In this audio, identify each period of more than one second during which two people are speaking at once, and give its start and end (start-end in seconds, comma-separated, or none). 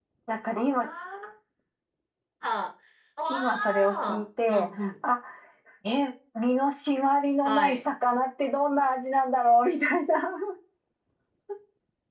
3.3-4.9